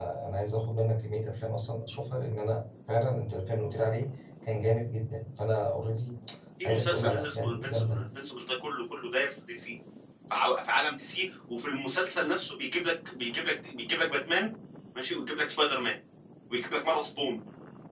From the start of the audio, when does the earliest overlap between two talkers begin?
6.7 s

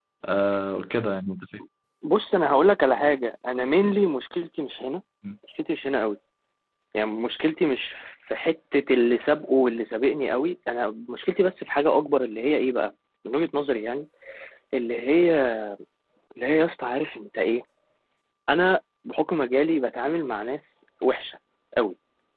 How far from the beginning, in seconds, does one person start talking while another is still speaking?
none

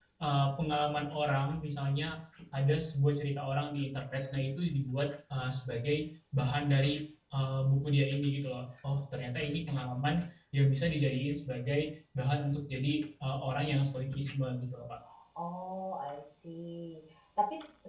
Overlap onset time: none

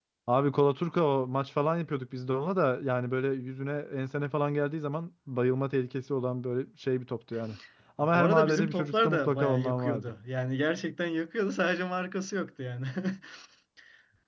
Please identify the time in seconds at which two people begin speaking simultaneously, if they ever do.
8.0 s

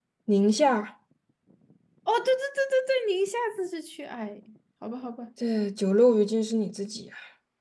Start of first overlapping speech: none

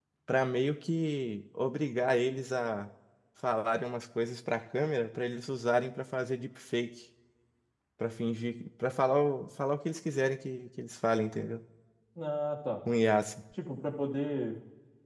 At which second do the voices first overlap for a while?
none

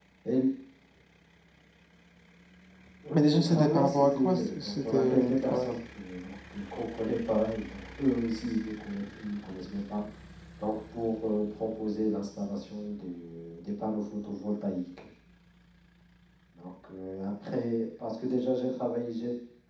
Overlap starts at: 3.1 s

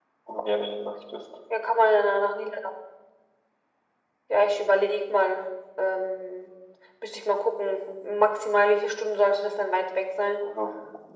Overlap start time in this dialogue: none

